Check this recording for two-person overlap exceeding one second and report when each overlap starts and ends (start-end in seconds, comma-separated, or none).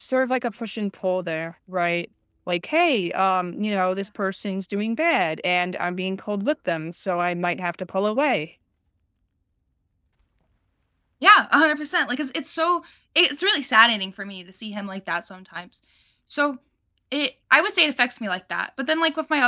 none